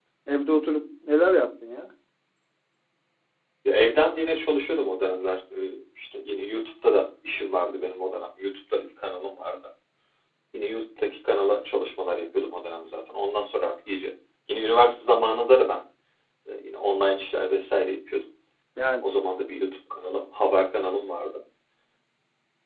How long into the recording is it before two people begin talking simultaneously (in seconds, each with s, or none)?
none